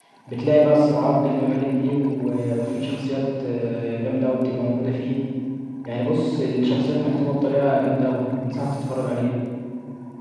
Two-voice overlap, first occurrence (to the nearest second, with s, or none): none